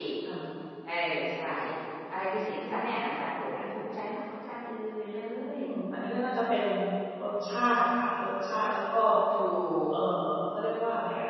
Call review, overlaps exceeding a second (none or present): none